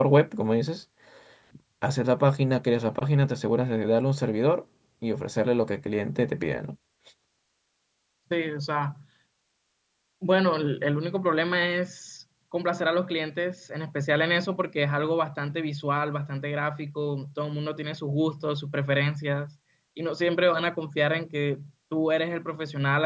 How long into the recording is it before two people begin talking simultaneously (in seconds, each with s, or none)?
none